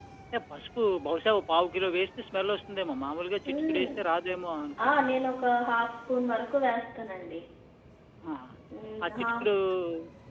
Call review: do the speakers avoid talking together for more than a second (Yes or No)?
Yes